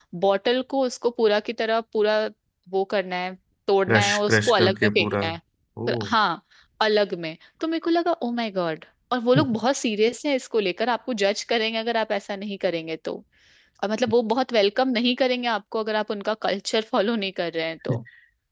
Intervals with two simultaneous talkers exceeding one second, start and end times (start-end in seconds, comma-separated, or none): 3.9-5.2